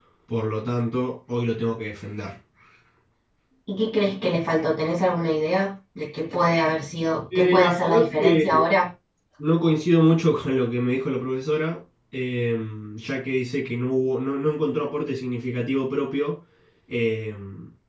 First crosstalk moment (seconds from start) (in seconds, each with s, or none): 7.3 s